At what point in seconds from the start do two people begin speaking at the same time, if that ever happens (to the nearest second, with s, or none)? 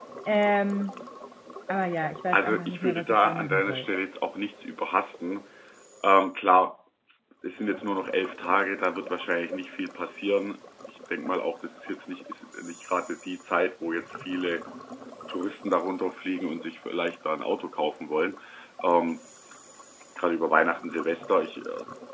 2 s